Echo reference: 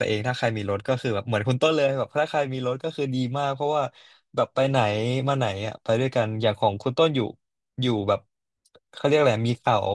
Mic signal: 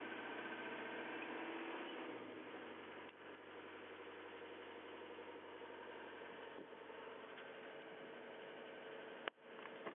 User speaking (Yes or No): No